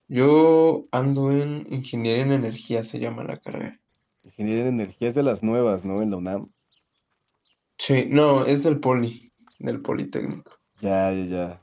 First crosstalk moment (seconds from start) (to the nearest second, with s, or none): none